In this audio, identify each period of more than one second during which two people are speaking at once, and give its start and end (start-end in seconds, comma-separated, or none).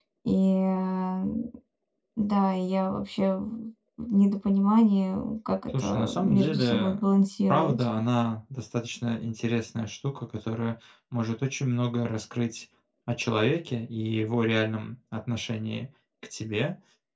5.8-7.0